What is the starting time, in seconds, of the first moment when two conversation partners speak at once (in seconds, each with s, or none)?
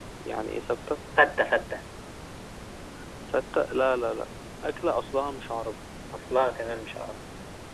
none